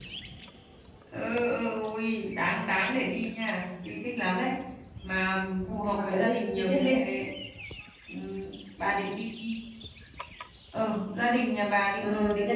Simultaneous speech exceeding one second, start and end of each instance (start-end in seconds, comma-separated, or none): 5.7-6.9